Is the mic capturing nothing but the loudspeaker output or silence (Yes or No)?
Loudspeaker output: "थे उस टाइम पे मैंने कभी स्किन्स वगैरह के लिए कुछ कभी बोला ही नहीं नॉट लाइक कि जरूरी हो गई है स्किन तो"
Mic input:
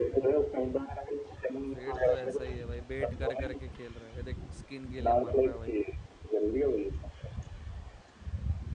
No